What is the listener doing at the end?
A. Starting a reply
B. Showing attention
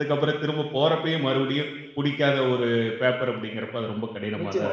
A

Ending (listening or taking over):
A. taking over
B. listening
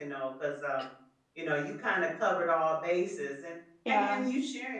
B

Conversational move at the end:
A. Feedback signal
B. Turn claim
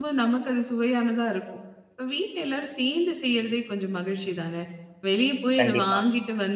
A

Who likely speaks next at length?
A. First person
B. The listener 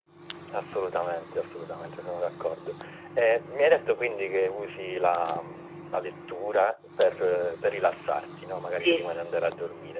A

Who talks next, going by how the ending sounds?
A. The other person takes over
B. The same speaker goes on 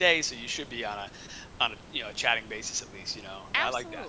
A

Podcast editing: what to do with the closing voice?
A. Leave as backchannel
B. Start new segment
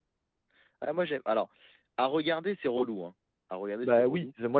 B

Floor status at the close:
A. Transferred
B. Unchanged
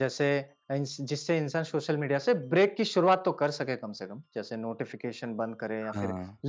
B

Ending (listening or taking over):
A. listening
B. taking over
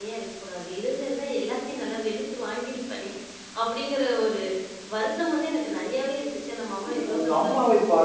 B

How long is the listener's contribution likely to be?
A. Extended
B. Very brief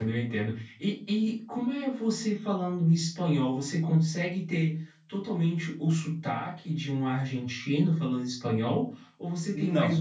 B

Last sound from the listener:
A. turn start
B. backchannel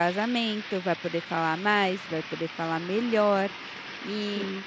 B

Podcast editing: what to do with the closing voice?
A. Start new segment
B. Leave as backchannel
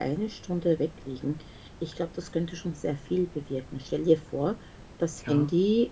B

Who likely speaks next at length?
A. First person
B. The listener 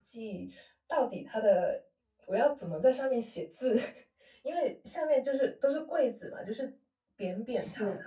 A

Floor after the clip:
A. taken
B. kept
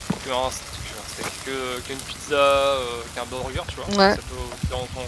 B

